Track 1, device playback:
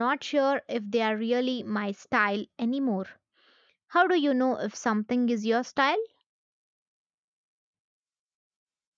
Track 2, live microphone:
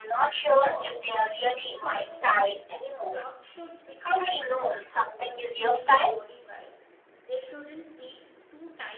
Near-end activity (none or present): present